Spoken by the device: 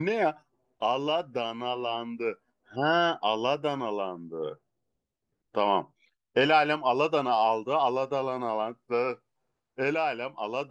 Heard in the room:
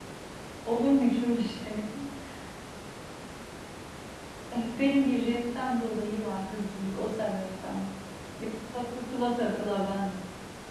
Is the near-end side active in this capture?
Yes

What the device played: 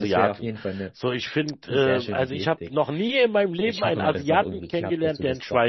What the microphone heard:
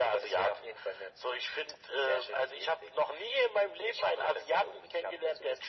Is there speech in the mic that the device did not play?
No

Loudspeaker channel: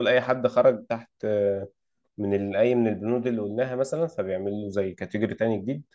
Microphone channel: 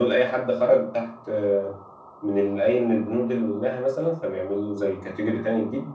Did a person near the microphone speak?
No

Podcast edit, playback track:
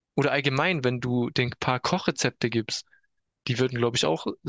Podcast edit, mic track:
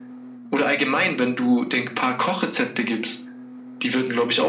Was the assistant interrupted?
No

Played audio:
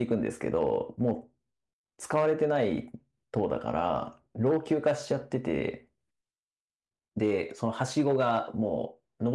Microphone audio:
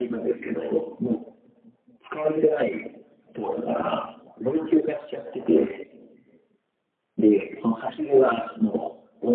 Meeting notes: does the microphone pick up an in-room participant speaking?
No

